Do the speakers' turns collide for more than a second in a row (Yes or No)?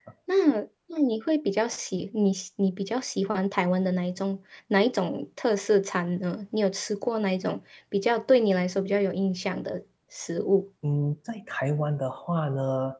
No